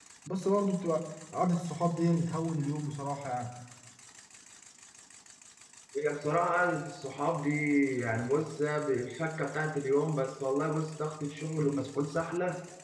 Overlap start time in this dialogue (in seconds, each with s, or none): none